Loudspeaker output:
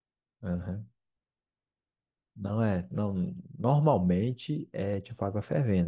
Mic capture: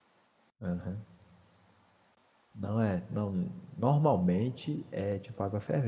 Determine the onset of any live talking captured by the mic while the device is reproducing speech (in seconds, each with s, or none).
none